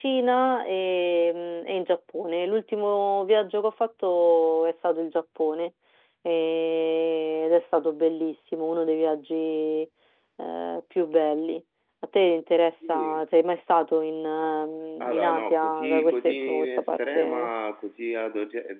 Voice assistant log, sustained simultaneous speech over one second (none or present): present